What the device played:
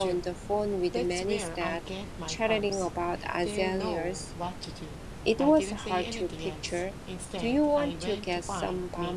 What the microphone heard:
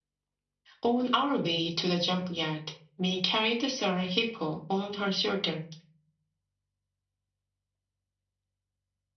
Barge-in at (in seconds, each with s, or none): 0.8 s